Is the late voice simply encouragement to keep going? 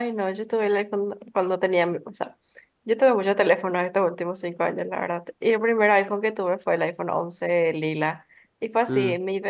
Yes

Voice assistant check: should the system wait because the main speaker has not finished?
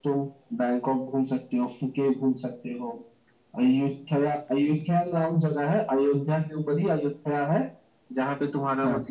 Yes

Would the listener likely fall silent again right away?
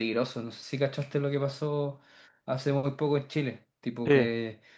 Yes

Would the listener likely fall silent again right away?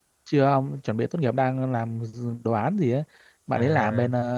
Yes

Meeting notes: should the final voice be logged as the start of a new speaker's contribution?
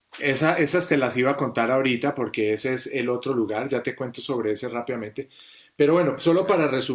No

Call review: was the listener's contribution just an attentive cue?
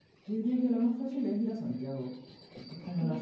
Yes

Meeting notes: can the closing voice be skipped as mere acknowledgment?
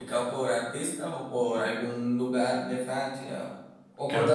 No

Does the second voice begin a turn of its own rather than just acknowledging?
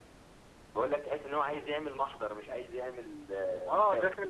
Yes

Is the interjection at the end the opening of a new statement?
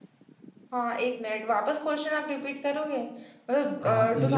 Yes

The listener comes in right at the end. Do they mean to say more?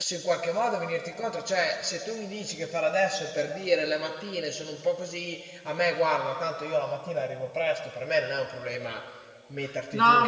Yes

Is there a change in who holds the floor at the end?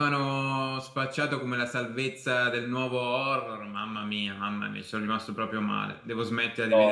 No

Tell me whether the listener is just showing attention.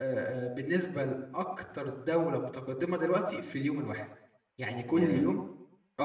Yes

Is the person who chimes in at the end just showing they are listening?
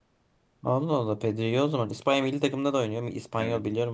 No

